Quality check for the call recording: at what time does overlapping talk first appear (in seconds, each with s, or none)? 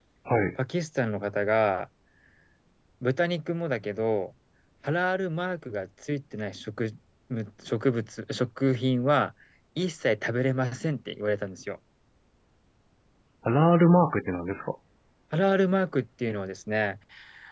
none